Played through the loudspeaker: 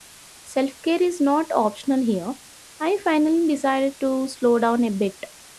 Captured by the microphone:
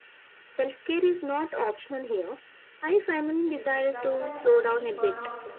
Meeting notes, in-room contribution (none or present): present